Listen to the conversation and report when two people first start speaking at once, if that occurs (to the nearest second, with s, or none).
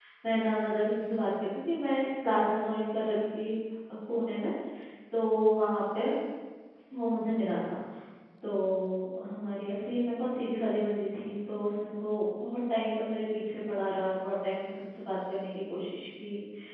none